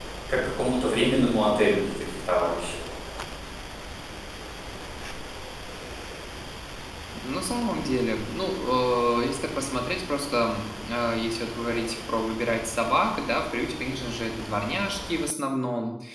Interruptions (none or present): none